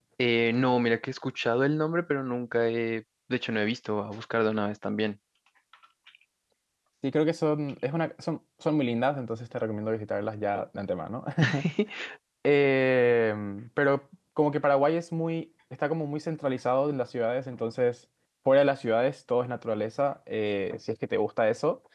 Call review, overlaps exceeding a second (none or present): none